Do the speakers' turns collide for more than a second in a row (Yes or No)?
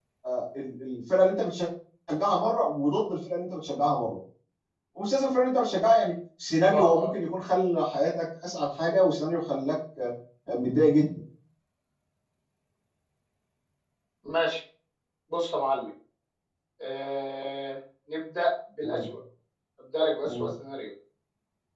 No